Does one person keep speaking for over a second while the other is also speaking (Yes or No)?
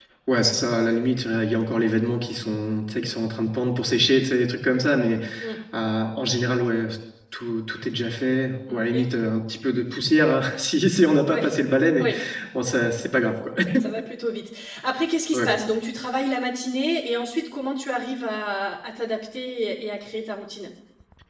No